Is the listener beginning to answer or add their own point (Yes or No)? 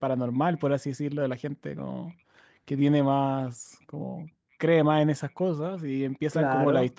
No